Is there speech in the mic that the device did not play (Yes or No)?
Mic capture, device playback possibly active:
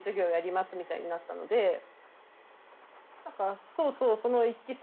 No